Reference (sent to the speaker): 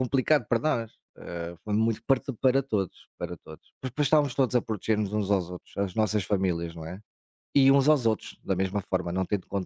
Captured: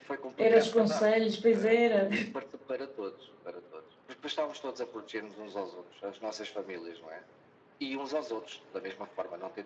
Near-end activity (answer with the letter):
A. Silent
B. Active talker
B